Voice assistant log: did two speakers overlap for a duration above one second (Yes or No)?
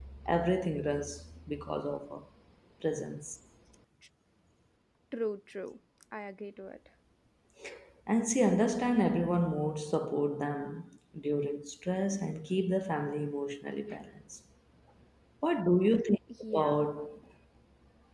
No